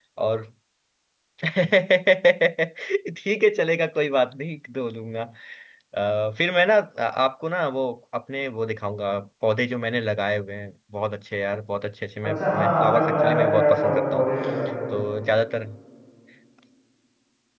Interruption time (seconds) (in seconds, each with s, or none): 12.2 s